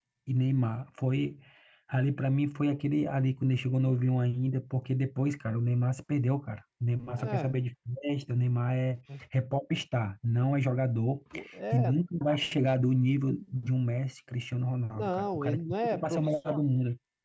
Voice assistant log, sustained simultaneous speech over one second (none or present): present